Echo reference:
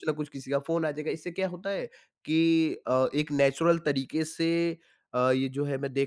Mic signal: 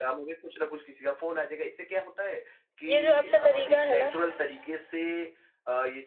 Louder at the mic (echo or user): user